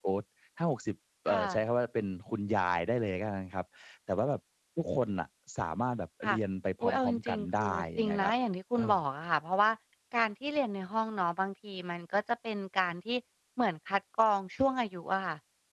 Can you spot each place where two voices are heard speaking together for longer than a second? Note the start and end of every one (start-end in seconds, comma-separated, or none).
6.8-8.3